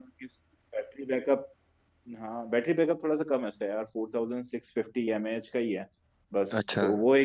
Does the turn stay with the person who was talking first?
Yes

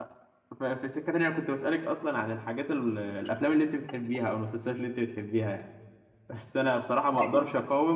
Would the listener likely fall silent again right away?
Yes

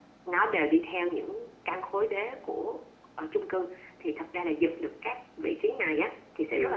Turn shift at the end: No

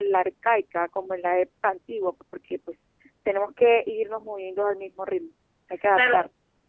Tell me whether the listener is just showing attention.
No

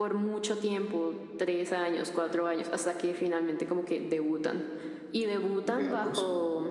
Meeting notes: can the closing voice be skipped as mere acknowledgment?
Yes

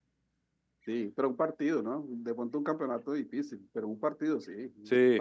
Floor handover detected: Yes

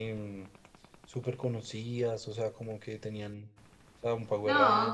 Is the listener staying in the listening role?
No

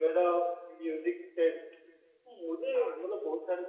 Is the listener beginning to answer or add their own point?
No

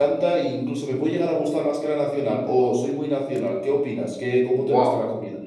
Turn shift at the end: Yes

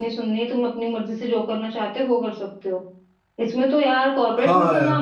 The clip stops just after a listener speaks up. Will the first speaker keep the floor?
Yes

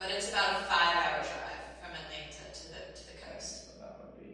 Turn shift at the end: Yes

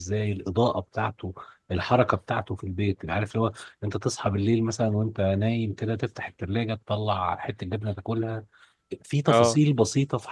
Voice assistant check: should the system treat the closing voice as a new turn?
No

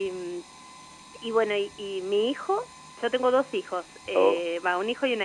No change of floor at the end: Yes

